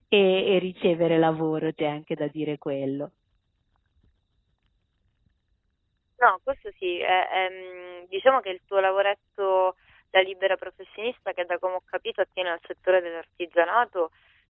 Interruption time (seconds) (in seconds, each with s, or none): none